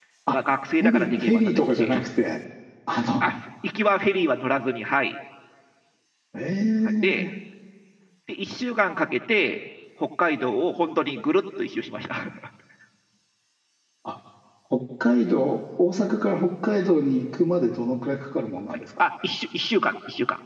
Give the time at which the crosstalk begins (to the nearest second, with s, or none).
1 s